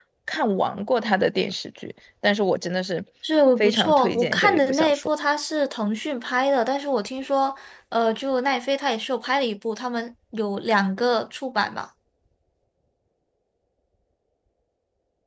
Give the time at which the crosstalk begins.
3.6 s

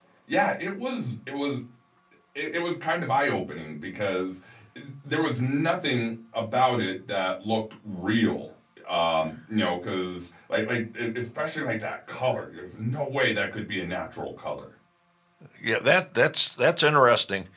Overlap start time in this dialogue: none

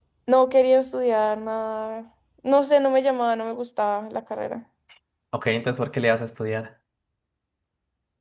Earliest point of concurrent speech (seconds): none

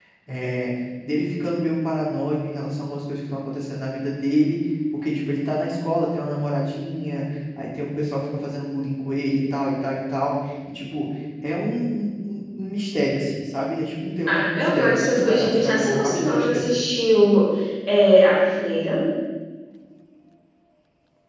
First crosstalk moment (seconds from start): 14.3 s

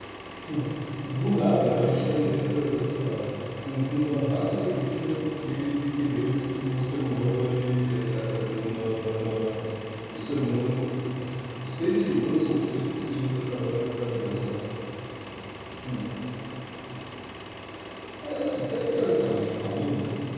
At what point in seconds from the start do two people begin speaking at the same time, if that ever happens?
none

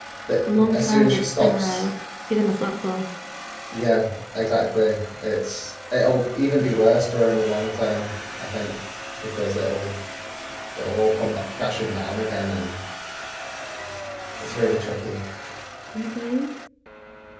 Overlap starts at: 0.5 s

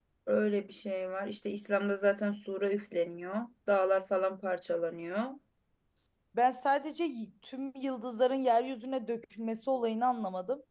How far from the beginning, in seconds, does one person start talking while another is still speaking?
none

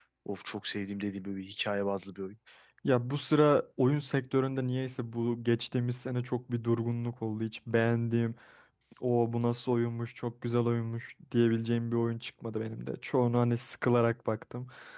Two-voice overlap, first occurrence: none

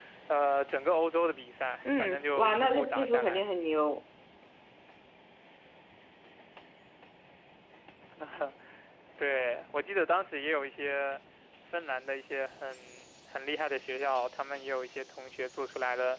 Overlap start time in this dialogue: 1.8 s

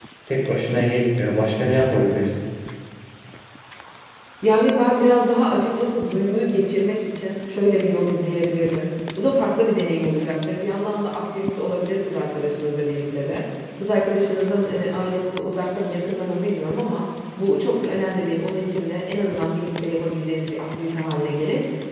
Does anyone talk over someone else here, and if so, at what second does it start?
none

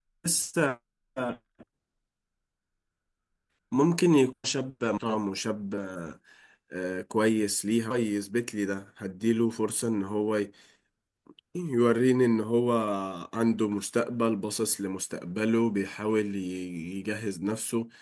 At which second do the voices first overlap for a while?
none

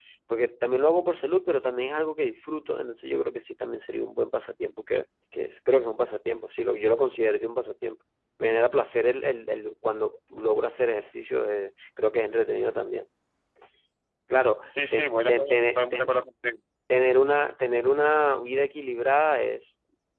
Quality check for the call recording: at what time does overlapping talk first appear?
14.9 s

